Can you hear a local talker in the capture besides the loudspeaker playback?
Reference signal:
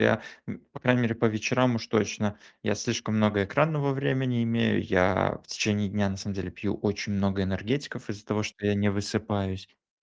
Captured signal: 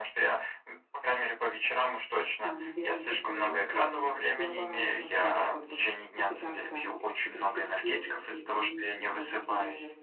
Yes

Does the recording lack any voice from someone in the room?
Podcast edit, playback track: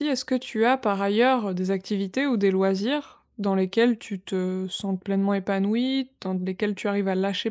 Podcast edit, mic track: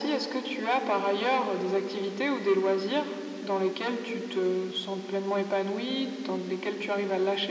Yes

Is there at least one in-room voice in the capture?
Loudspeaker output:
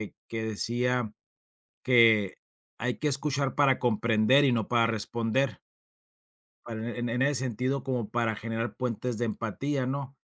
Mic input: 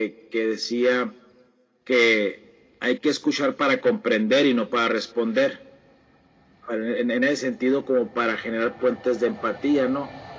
No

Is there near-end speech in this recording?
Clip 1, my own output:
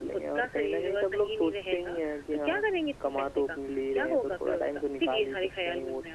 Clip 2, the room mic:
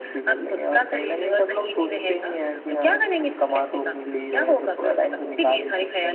No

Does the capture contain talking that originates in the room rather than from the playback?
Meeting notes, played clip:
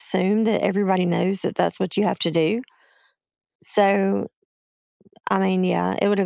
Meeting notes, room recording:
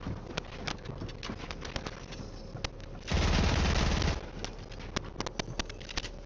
No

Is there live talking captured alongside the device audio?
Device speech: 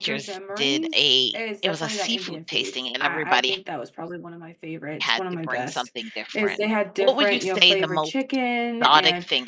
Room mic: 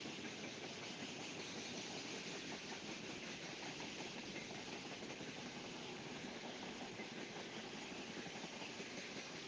No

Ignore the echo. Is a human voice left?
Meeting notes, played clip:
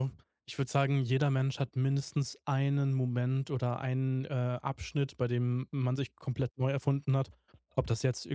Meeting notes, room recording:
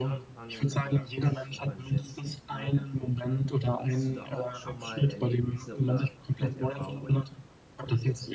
Yes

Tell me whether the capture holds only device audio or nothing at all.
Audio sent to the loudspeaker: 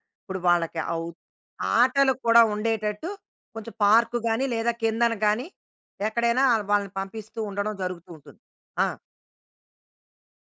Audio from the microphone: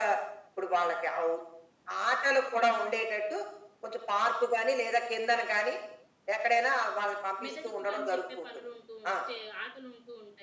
No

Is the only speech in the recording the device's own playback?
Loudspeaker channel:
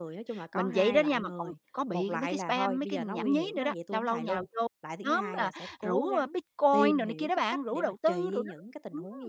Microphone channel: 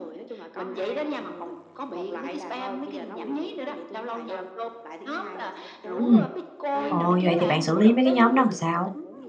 No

